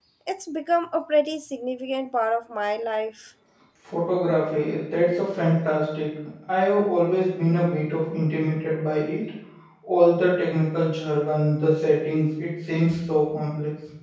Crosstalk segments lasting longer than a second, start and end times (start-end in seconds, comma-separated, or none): none